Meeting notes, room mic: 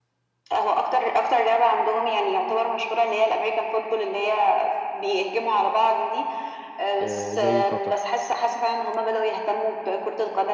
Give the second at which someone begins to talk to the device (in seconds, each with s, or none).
7.0 s